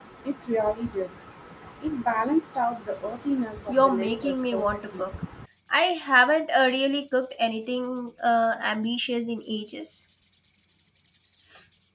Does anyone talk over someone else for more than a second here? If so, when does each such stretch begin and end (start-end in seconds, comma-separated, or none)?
3.7-5.0